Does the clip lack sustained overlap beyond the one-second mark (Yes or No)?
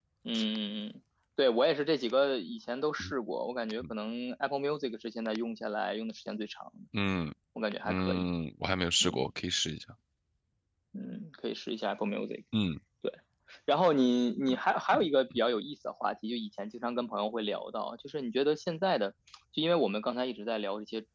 Yes